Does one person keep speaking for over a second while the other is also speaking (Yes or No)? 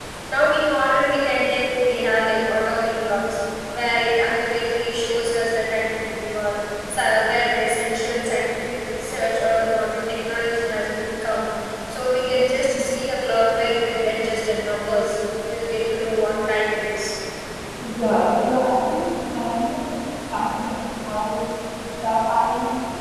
No